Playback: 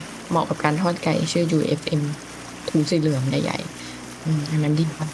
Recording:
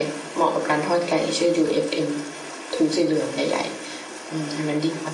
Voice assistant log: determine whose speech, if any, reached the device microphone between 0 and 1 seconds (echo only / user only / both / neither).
echo only